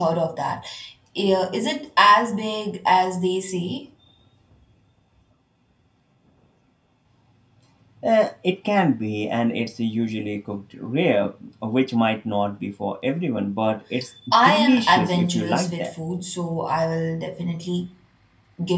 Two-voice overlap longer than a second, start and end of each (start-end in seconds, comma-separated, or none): 14.4-15.9